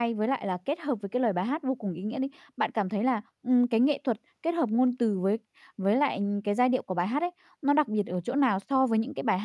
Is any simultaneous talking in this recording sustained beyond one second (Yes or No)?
No